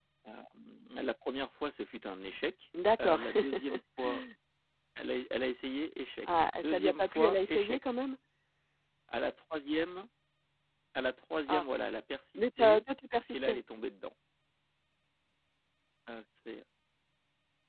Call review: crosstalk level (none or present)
present